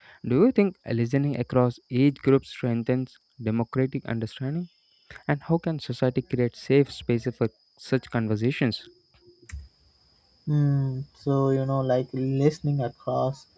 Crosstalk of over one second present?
No

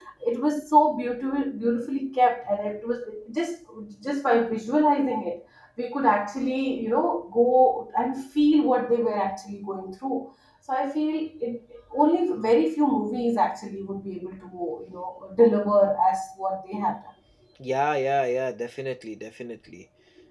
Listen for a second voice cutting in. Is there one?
No

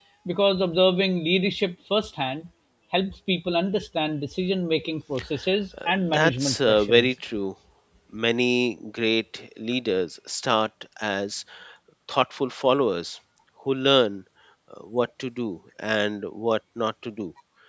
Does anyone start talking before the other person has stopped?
Yes, from 5.7 s

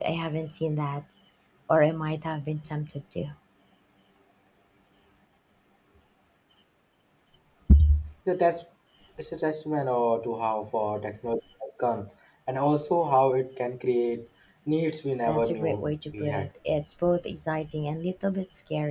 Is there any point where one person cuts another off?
Yes, from 15.2 s

